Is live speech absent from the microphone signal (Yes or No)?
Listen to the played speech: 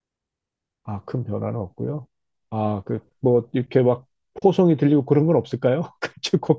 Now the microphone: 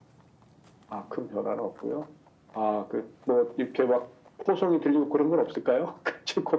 Yes